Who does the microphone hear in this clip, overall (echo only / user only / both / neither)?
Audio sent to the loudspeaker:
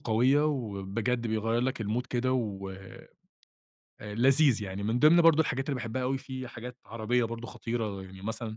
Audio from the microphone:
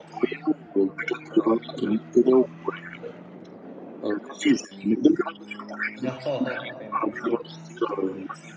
both